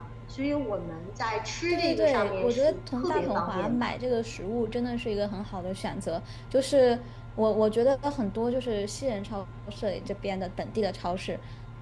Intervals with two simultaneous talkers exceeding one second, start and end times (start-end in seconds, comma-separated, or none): 1.7-3.8